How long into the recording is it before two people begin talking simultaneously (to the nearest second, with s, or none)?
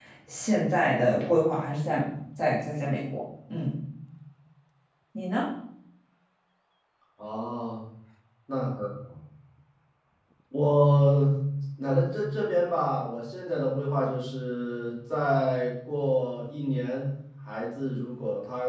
none